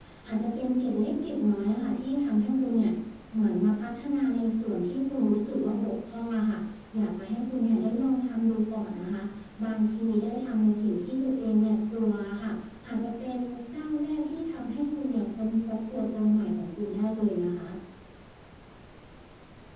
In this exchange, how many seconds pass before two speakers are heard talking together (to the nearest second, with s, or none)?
none